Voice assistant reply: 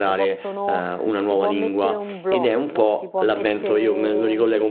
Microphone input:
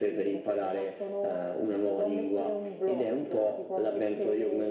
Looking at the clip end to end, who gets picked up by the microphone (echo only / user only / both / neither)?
echo only